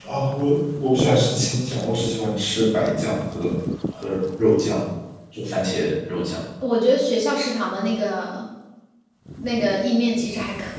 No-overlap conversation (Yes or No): Yes